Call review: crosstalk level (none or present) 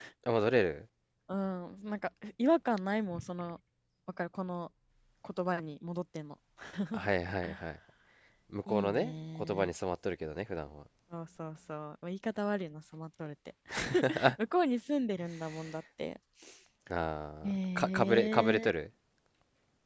present